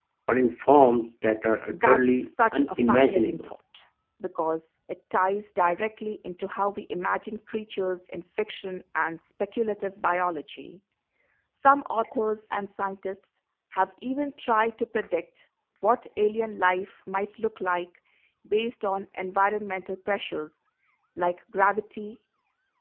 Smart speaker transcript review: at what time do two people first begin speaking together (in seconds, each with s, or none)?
1.7 s